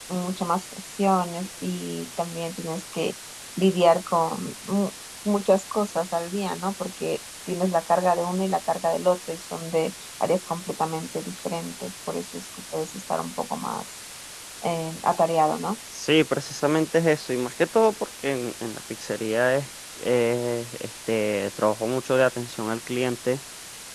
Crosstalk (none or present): none